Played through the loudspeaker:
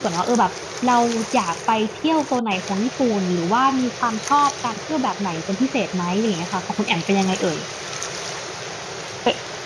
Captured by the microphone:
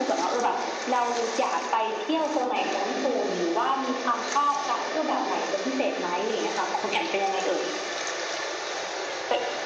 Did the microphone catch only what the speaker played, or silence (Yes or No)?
Yes